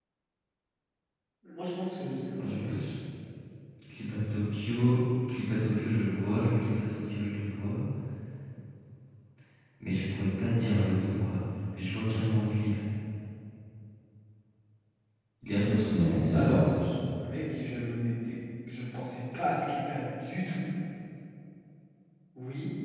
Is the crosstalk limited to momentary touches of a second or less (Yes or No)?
Yes